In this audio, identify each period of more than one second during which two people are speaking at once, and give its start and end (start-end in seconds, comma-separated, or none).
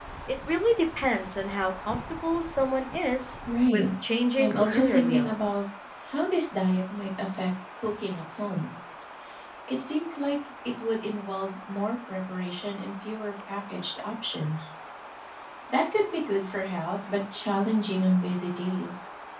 4.4-5.6